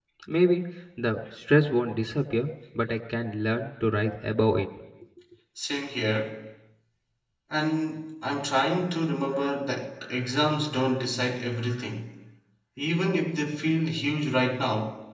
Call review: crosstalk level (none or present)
none